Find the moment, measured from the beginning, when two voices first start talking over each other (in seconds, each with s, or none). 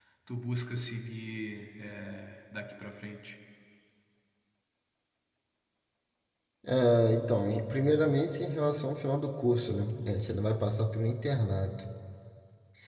none